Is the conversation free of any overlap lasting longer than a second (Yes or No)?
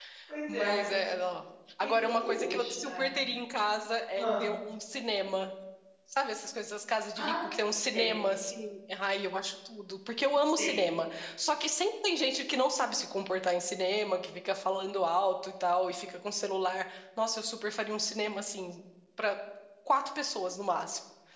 No